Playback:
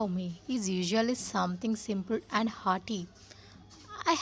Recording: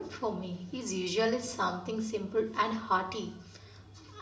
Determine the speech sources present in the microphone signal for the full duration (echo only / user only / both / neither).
echo only